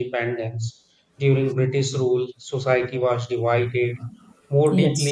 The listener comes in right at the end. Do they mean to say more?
No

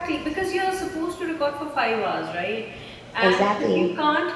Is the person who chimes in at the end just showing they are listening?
Yes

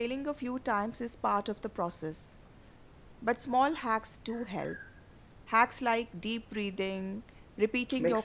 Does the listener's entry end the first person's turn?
No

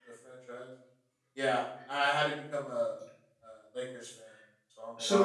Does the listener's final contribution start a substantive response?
Yes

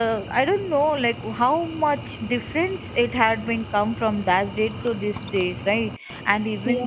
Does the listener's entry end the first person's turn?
No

